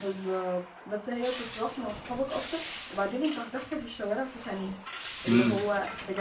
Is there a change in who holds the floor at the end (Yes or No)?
No